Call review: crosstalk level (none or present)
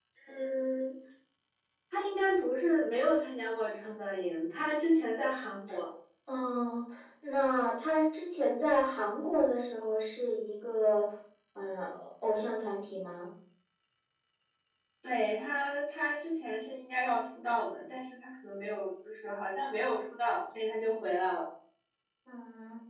none